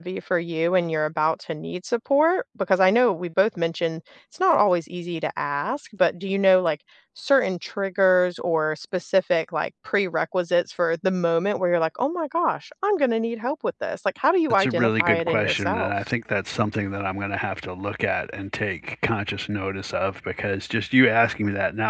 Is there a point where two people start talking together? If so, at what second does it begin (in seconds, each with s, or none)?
14.5 s